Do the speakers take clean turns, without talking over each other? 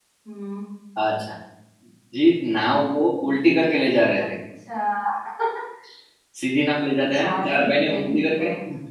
No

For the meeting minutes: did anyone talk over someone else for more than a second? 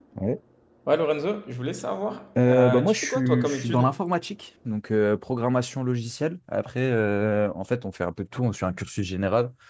Yes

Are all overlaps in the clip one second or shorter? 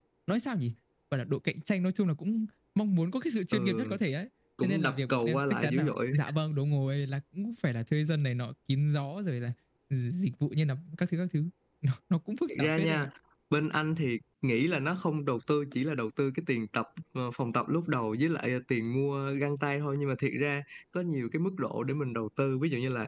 No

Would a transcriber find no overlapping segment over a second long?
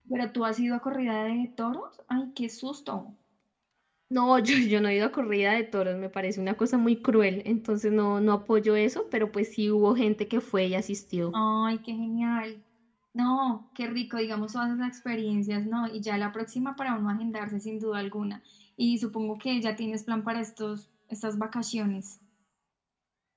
Yes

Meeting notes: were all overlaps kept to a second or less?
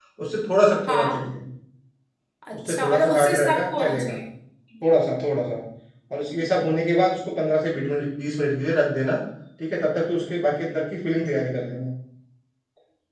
No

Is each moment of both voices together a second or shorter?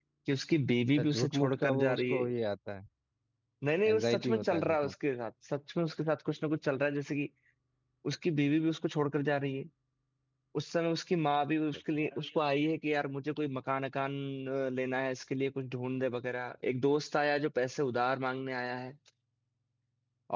No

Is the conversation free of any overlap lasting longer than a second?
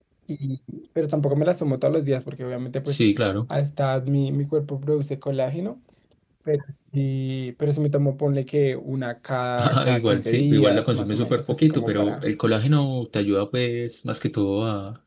No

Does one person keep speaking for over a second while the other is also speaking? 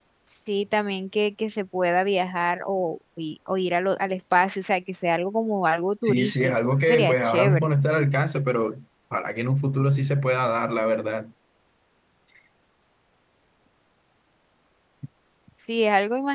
Yes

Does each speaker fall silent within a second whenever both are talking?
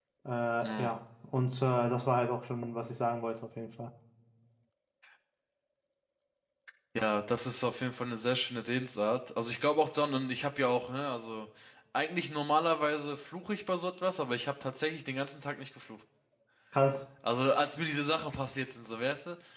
Yes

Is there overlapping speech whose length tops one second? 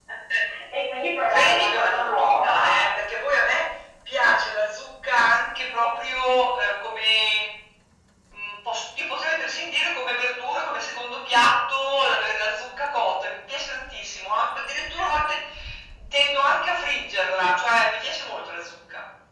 Yes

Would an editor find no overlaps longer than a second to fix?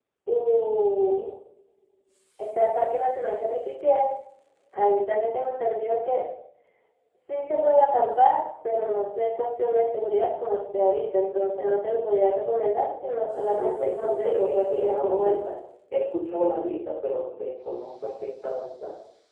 No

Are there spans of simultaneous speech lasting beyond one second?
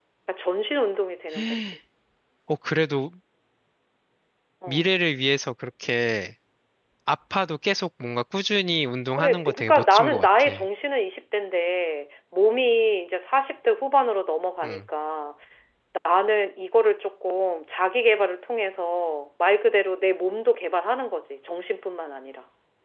Yes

